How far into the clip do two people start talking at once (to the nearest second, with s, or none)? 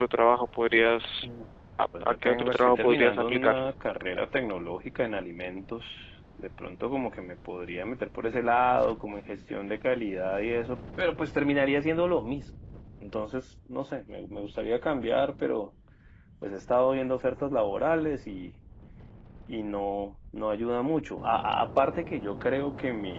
2 s